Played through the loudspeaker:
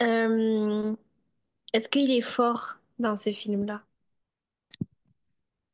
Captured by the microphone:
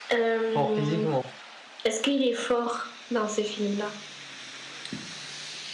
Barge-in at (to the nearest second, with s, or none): 1 s